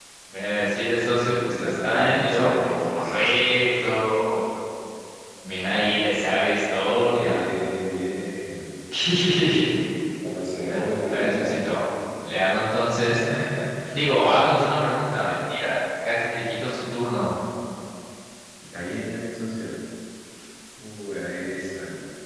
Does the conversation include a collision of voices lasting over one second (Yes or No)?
Yes